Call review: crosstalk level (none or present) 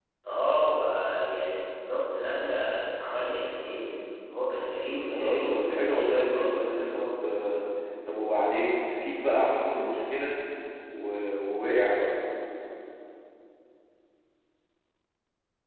present